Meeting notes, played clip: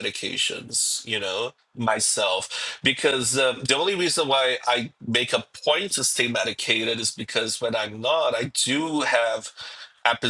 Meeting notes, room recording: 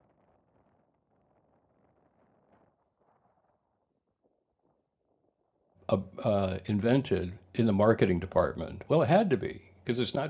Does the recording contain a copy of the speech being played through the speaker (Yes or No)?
No